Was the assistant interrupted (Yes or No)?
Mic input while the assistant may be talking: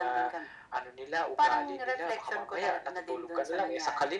No